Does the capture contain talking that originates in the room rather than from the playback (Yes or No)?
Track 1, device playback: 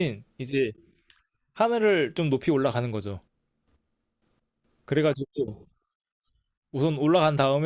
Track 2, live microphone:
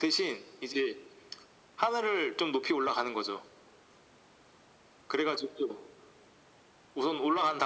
No